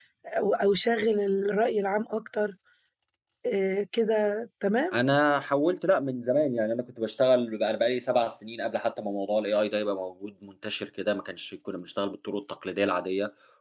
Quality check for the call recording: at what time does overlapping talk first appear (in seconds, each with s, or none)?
none